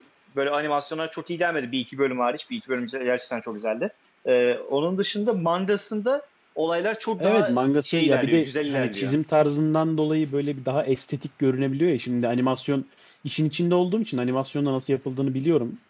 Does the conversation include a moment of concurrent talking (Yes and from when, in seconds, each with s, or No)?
Yes, from 7.2 s